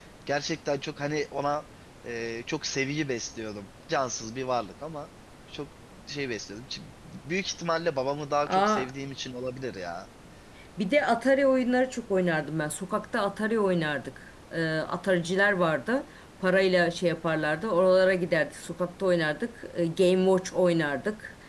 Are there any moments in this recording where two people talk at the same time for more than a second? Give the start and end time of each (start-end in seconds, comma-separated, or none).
none